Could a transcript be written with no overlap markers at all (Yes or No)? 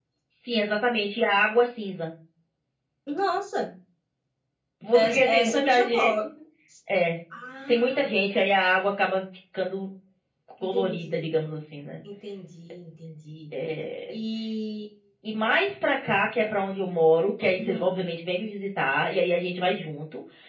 No